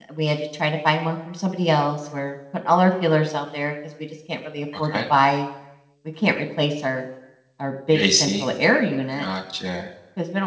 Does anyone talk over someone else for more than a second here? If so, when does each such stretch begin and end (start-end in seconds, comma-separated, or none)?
none